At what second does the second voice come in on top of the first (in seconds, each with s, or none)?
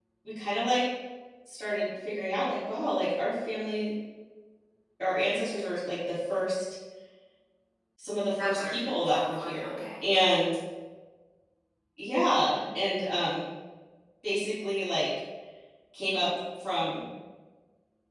8.4 s